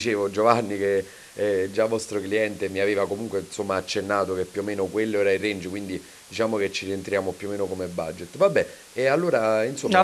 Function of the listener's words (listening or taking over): taking over